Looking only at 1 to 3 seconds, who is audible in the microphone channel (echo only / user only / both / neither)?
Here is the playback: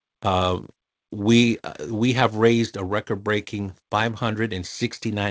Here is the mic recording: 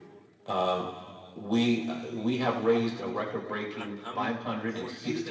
echo only